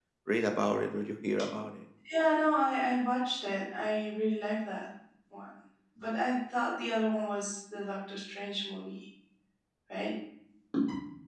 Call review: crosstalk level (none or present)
none